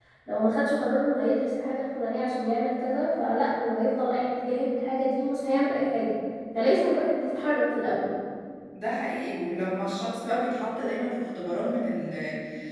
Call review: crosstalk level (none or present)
none